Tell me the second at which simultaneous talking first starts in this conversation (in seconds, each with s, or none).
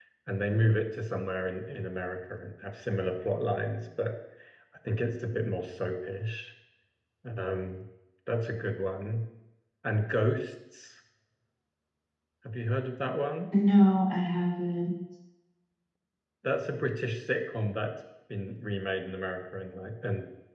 none